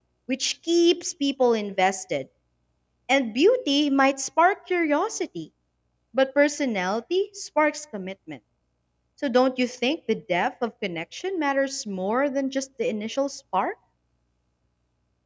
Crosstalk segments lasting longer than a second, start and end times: none

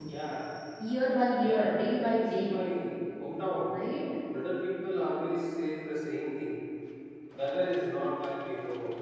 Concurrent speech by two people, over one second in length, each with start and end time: 1.1-2.5

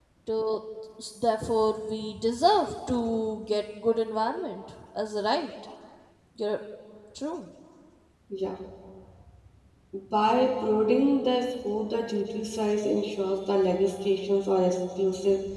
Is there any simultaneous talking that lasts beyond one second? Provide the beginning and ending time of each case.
none

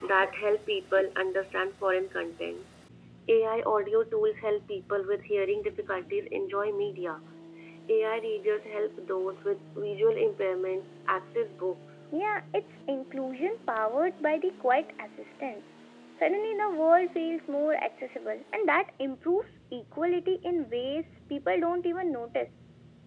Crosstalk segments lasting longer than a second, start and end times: none

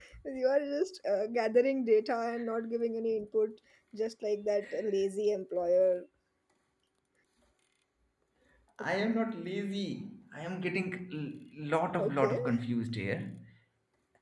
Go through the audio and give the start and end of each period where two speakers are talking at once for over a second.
none

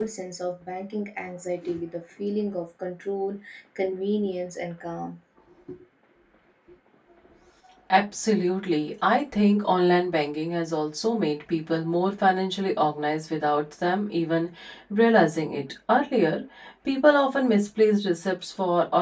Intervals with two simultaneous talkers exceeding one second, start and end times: none

